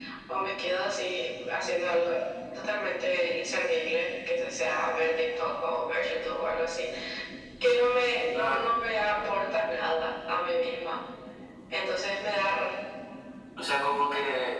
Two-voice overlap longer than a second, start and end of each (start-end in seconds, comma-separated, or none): none